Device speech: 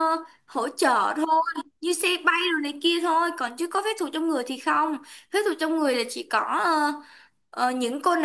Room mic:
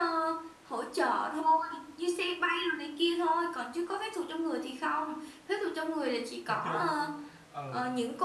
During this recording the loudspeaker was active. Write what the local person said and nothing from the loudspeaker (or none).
Vật dục. Ừ.